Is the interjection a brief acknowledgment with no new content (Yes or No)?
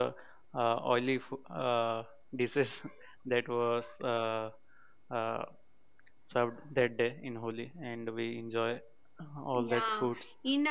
No